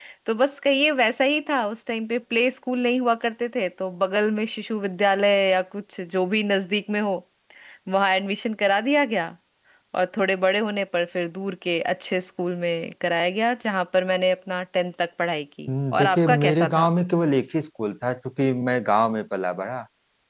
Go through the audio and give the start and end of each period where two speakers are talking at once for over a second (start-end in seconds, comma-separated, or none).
15.7-16.9